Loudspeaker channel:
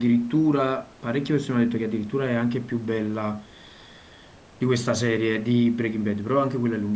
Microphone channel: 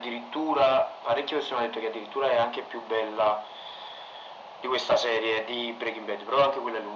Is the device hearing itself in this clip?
Yes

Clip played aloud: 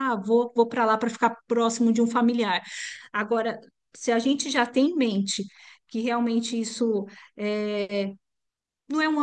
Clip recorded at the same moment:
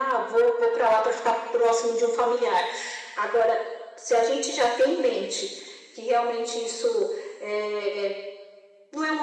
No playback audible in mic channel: No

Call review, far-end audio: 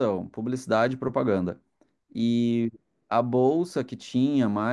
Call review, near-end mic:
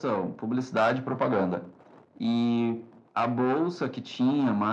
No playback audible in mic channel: No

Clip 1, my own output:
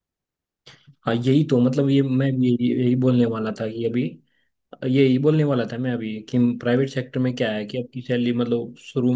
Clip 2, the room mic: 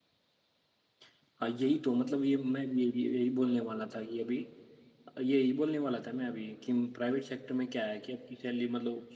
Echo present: Yes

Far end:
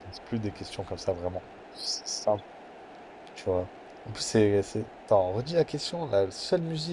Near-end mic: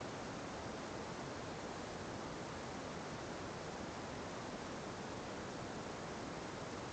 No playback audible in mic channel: Yes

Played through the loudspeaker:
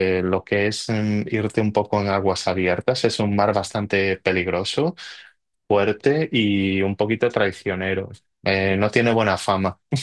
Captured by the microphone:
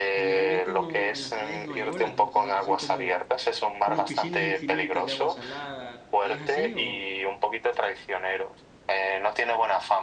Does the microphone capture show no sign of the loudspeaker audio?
No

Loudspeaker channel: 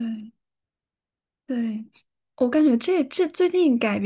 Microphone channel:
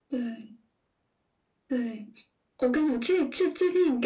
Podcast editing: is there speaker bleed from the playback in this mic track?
Yes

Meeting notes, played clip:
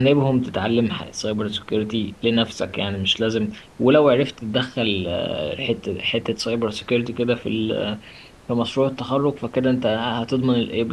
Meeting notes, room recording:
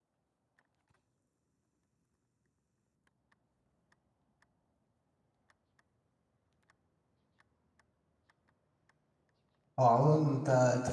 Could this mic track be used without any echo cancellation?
Yes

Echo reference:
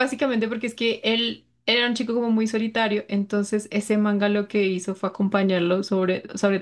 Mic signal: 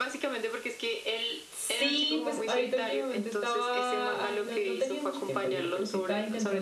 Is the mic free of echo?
No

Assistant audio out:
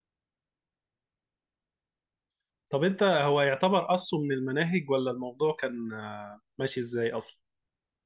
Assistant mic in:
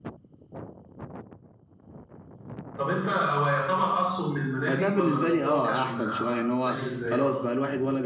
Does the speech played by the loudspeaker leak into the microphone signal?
Yes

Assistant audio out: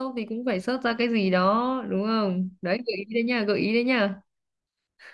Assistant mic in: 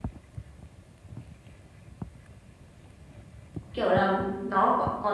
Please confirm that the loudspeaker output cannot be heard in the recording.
Yes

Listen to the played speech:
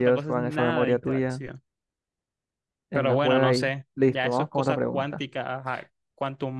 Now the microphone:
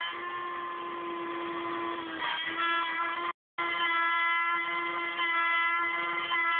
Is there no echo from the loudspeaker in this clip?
Yes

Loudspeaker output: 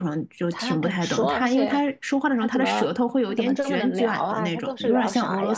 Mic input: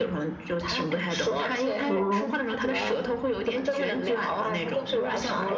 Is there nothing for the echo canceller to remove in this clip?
No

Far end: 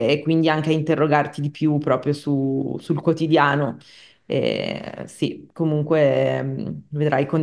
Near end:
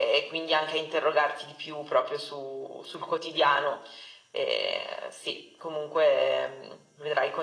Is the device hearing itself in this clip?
Yes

